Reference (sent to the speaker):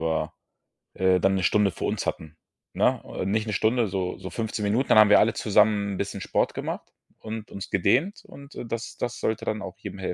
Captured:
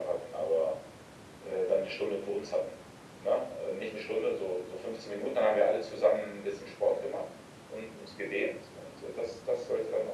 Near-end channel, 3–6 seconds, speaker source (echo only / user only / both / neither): echo only